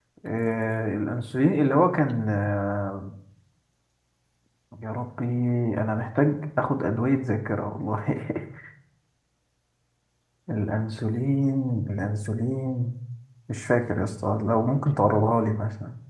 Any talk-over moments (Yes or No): No